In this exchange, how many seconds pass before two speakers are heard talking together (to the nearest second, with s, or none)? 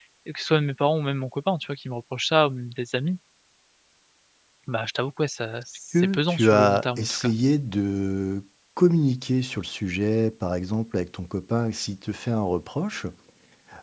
6 s